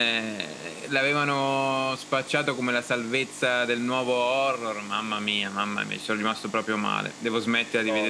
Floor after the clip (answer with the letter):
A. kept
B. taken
A